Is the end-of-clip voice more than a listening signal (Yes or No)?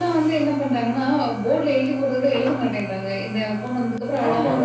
Yes